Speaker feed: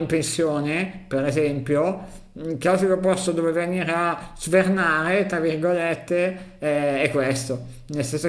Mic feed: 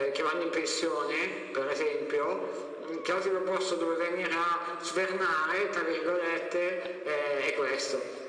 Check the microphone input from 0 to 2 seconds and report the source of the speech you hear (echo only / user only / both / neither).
echo only